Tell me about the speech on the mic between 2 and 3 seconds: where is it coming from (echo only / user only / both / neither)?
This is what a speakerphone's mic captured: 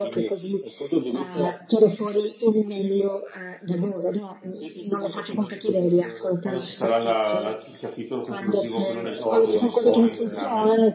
echo only